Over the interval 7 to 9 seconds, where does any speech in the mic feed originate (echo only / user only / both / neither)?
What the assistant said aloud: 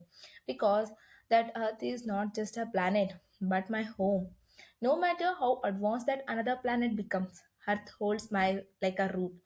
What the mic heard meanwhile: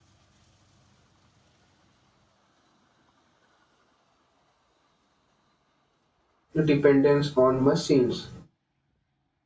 user only